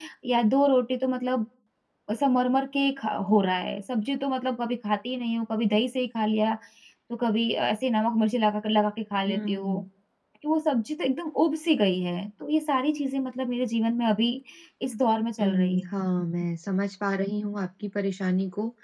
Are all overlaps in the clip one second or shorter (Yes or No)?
Yes